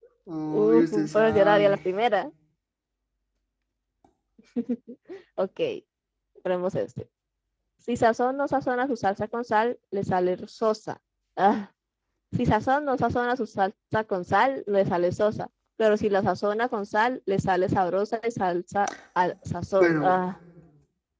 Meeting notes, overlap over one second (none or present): present